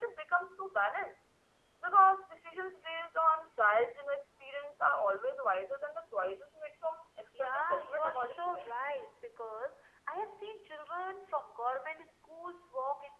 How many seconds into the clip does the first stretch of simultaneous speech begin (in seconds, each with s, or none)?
7.3 s